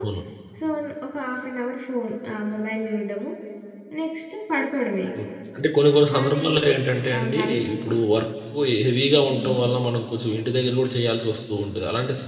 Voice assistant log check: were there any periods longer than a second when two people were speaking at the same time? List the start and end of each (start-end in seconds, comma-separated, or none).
none